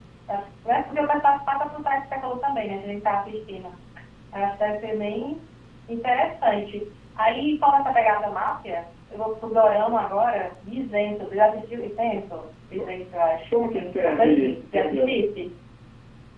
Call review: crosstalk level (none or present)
present